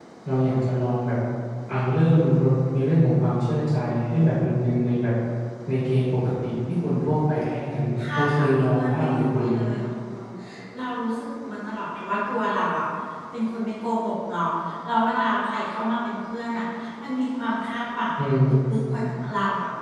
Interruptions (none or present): present